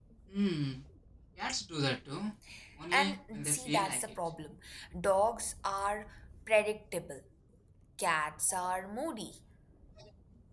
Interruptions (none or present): present